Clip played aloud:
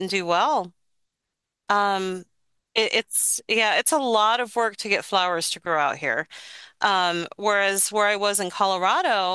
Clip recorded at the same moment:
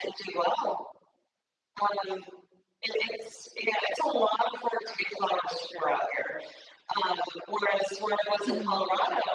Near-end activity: present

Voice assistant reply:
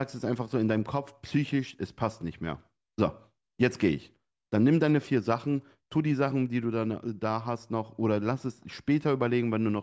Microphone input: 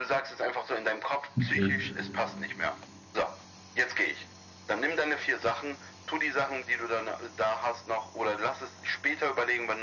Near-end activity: present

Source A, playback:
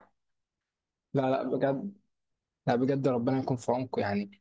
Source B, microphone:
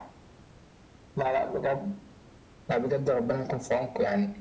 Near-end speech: none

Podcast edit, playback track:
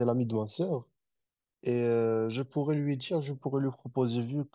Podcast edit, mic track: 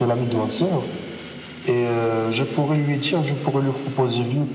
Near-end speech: none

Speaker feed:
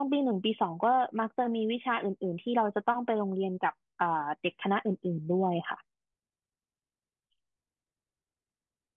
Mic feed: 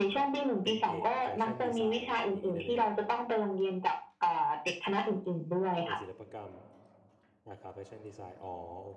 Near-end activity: present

